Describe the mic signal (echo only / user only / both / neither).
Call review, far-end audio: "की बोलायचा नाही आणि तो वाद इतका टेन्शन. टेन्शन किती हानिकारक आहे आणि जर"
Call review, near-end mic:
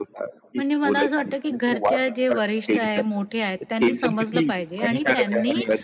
both